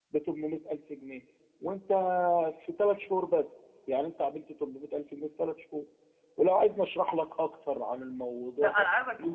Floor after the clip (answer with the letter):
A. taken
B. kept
A